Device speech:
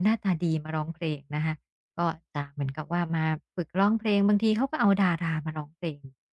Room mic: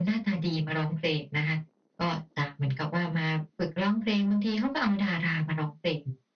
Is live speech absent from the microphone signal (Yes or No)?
Yes